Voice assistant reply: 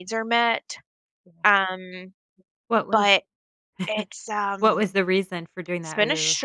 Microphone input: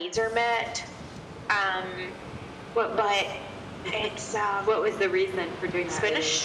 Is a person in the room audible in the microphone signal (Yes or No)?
No